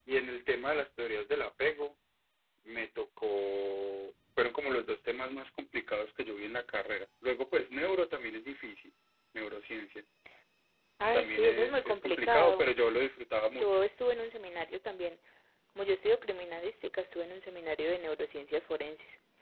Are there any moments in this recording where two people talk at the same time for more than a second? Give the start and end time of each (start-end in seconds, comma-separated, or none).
11.1-12.7